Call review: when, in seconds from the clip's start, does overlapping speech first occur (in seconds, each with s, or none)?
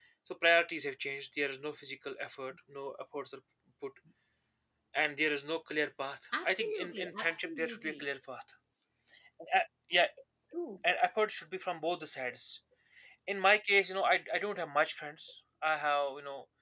6.3 s